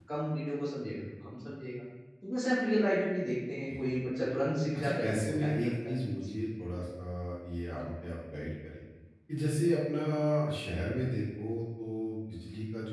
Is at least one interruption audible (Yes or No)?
Yes